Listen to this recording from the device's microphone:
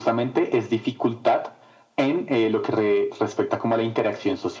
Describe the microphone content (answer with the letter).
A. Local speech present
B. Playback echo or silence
B